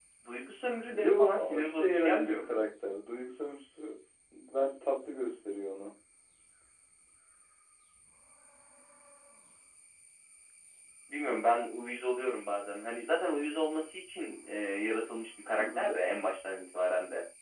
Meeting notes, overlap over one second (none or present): present